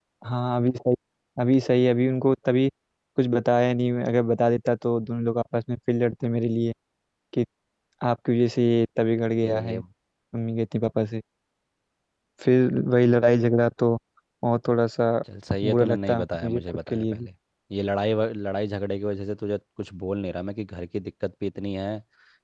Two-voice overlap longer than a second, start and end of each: 15.6-17.3

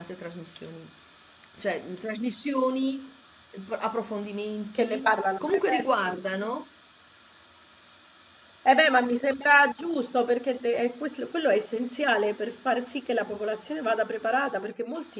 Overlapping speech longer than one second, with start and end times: 4.8-6.2

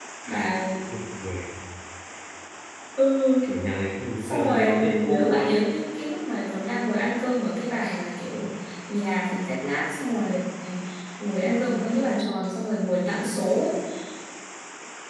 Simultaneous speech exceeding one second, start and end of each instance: 4.2-5.5

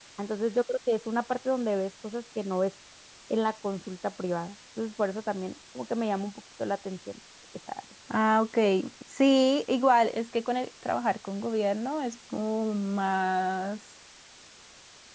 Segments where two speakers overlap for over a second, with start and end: none

